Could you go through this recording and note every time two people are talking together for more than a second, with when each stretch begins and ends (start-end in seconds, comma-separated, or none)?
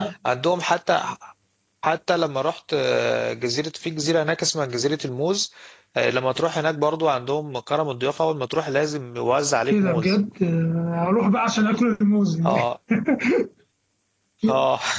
none